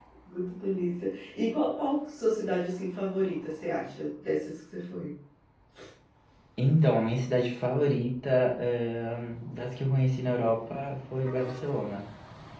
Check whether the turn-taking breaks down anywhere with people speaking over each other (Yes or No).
No